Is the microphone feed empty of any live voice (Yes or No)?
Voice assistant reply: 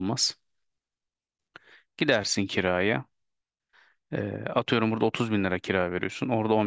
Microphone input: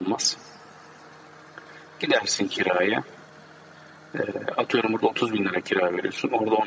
Yes